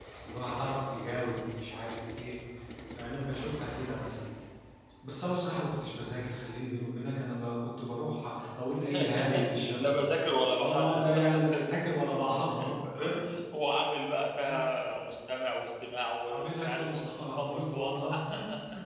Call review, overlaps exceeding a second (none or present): present